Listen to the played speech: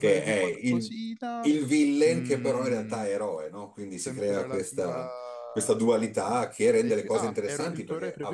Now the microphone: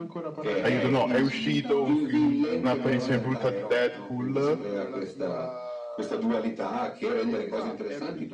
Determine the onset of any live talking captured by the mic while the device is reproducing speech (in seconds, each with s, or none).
0.6 s